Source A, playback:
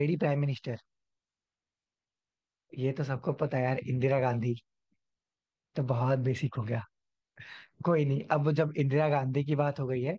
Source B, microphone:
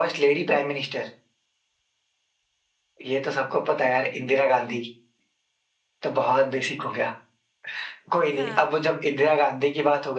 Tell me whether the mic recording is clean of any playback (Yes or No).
No